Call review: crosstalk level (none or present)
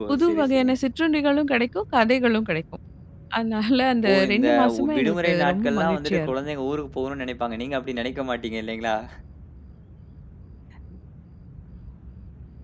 present